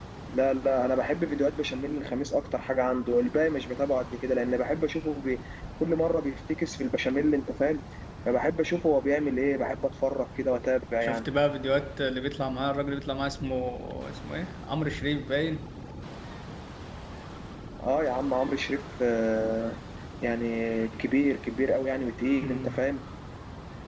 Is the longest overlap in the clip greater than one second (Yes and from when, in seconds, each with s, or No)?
No